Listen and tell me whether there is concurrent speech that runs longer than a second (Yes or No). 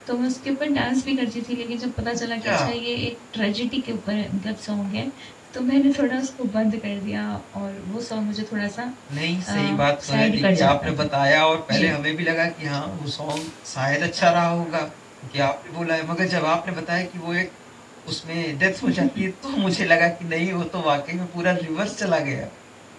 Yes